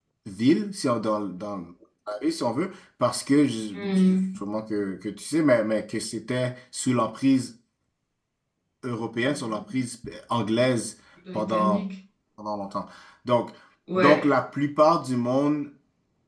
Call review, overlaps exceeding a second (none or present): none